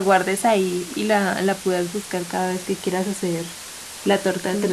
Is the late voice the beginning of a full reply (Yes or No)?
Yes